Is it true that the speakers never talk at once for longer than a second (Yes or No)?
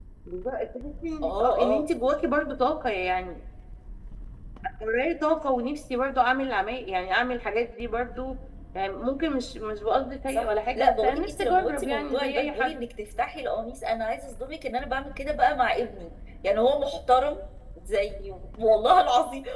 No